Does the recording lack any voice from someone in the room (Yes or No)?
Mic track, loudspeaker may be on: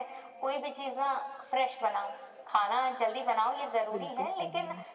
No